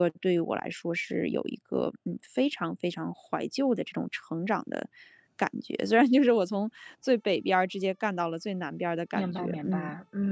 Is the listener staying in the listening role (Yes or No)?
No